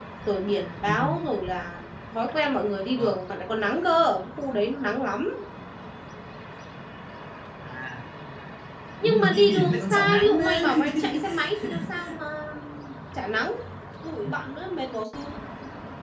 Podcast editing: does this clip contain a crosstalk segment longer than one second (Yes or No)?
Yes